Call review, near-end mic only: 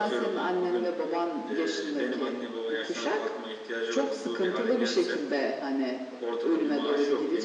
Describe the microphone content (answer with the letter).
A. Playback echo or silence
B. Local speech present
A